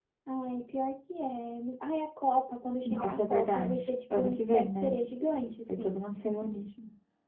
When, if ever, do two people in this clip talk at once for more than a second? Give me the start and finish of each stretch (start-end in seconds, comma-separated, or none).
2.9-5.0